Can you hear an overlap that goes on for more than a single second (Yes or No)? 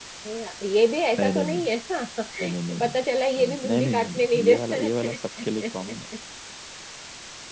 Yes